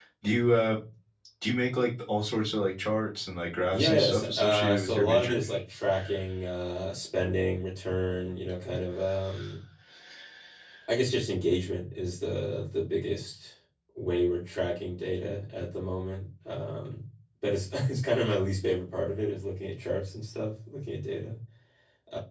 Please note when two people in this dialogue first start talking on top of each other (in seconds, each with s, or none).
3.7 s